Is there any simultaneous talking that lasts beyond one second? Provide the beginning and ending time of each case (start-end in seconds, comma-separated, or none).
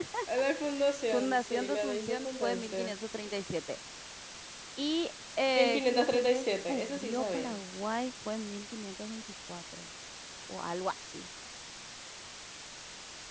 1.1-3.0, 5.6-7.5